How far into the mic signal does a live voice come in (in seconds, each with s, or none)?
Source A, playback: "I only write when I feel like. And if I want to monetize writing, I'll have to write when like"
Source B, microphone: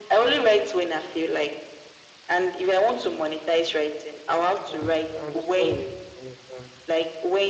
4.7 s